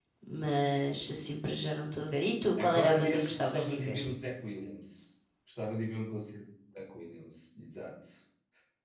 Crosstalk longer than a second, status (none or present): present